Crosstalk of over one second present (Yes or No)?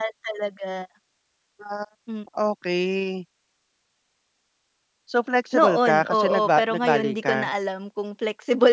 Yes